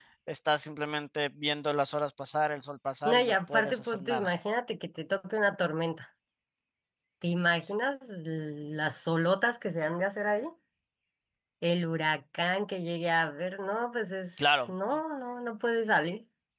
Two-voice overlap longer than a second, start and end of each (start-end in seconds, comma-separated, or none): 3.0-4.3